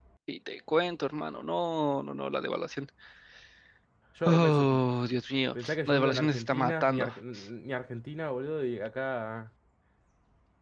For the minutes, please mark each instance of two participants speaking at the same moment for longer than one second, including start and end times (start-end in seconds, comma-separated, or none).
5.6-7.1